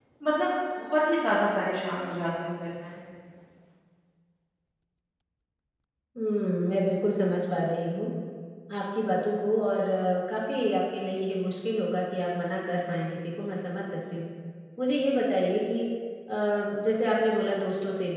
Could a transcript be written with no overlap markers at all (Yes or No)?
Yes